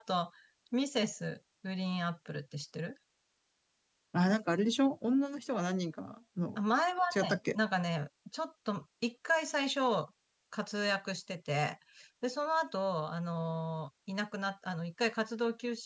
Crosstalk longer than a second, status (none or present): none